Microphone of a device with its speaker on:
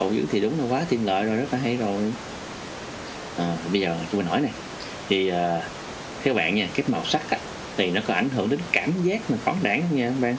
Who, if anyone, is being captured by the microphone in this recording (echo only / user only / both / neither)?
echo only